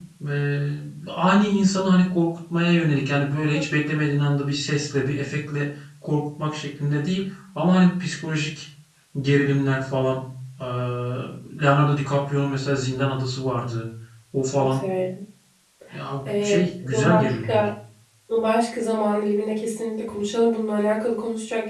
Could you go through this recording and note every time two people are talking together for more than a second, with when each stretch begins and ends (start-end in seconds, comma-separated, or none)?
16.2-17.6